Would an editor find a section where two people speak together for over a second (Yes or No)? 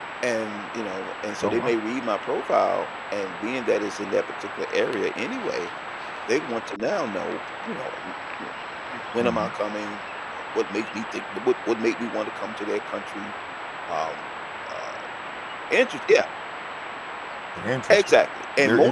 No